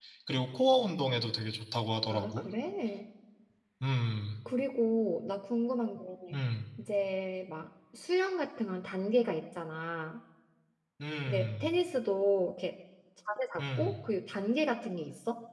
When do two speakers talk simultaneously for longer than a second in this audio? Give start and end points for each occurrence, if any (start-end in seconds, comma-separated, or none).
none